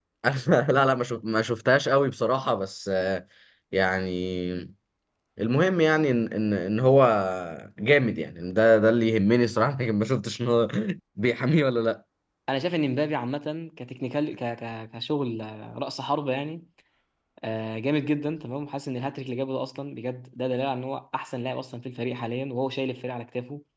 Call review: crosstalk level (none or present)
none